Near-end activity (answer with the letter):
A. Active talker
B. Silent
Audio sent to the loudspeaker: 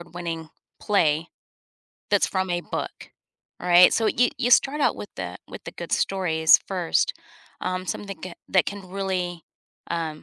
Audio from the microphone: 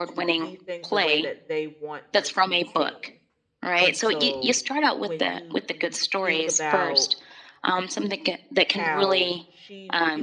A